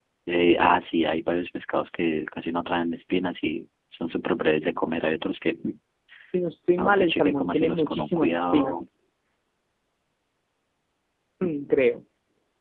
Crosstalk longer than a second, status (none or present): present